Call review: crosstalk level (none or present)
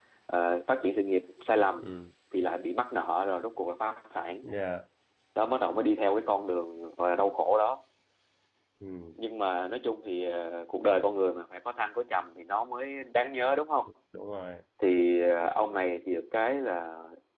none